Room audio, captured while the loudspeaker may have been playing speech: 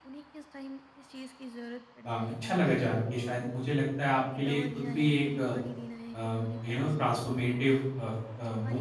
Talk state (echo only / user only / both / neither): both